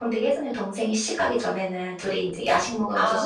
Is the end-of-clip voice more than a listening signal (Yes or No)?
No